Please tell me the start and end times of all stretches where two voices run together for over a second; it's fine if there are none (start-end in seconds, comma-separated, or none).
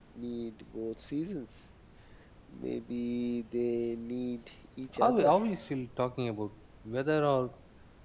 none